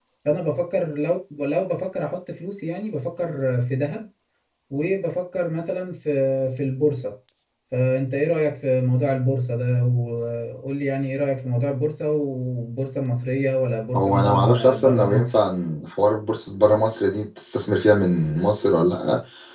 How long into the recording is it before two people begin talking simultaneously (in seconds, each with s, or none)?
13.9 s